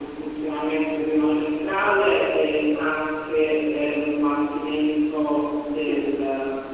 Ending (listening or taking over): listening